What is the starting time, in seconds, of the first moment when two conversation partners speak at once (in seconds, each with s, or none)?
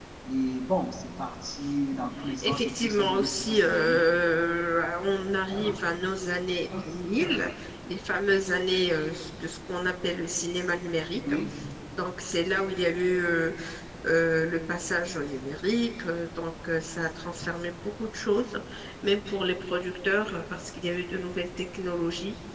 2.4 s